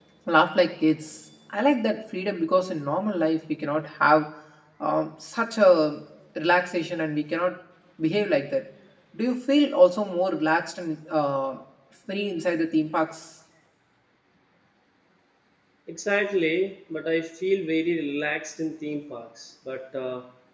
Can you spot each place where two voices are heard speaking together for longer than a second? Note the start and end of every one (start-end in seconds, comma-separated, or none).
none